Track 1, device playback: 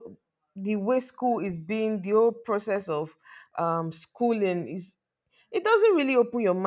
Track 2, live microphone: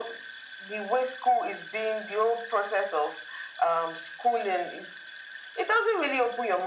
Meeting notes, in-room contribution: none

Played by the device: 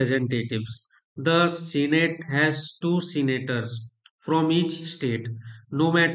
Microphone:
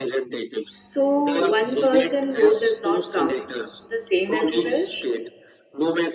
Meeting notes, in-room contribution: present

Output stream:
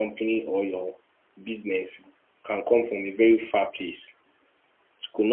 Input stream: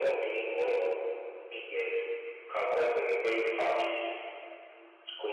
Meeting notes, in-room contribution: none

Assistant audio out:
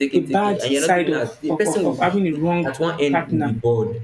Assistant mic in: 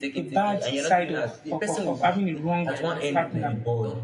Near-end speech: present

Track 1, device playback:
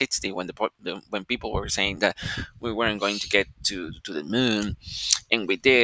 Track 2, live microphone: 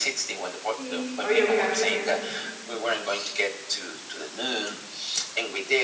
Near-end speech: present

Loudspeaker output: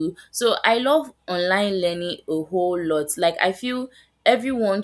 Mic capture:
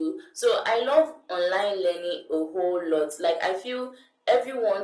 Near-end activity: none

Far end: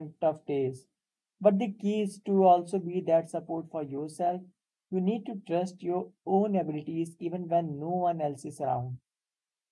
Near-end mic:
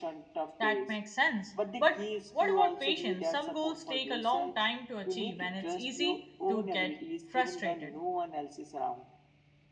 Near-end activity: present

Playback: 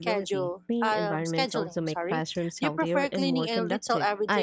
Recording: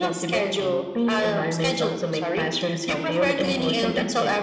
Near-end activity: none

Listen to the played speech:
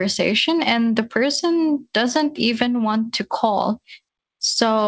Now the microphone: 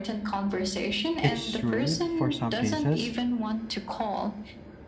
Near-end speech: present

